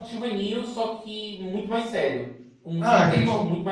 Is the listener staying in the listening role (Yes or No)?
No